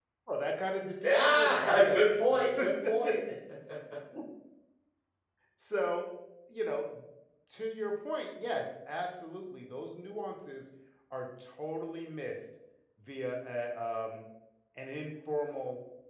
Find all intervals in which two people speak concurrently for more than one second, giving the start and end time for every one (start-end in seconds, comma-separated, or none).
1.0-3.1